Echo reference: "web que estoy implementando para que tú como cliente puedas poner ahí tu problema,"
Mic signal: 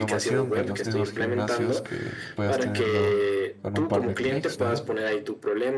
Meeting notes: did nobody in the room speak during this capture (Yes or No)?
No